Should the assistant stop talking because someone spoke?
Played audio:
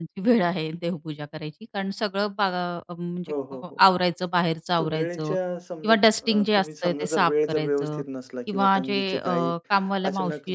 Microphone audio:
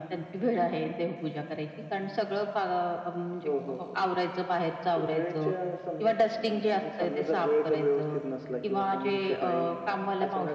No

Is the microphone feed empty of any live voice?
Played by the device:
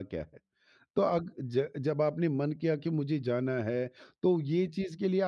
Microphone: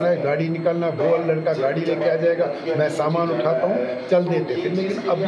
No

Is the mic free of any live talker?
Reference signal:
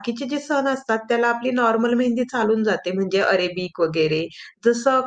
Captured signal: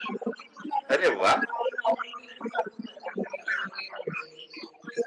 No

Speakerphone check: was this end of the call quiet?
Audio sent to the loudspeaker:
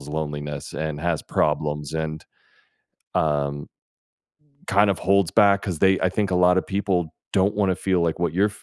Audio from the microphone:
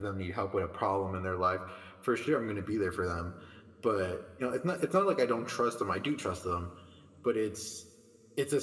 No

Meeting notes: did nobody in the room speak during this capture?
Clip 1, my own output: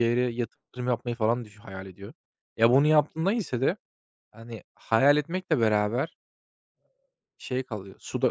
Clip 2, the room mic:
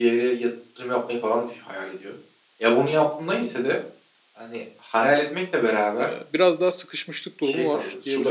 No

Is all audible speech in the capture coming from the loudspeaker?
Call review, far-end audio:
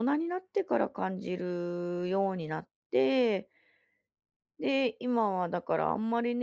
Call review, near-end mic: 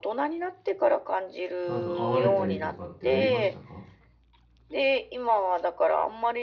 No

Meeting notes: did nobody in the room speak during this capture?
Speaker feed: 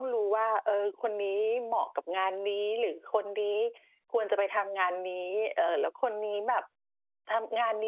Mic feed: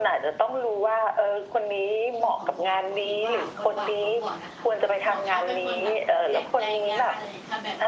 No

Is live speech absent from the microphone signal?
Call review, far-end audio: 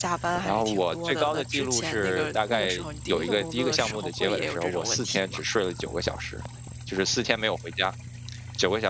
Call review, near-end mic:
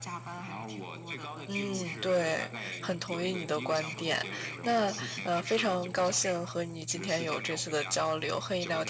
No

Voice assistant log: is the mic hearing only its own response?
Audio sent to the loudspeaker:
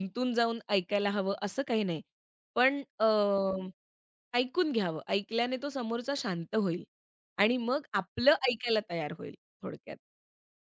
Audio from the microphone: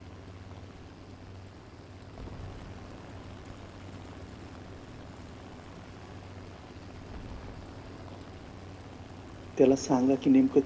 No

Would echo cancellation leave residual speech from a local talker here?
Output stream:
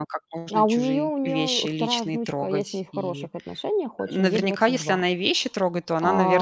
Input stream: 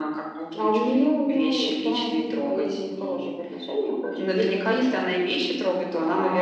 No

